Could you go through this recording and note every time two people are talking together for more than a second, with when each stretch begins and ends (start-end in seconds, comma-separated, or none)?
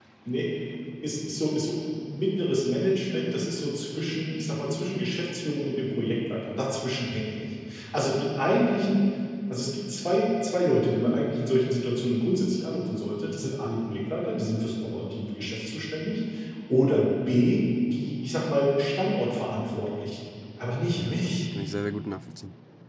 none